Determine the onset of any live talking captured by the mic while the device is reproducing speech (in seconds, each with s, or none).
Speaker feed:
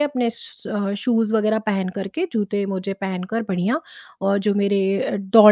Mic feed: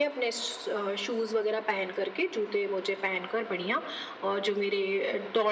none